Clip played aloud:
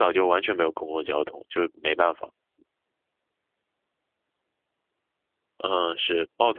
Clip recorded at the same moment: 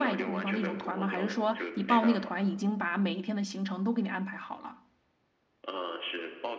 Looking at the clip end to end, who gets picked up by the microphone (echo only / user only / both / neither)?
both